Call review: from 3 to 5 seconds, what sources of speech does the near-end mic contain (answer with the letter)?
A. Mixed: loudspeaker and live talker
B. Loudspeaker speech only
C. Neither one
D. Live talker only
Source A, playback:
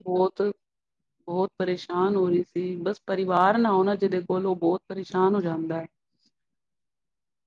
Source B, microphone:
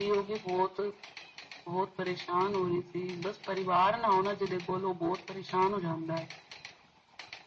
B